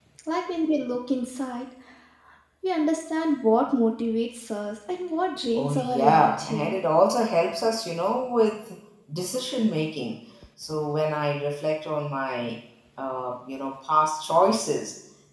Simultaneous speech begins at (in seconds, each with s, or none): 5.5 s